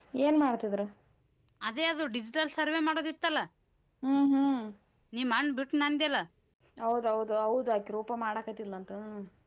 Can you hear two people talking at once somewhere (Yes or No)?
No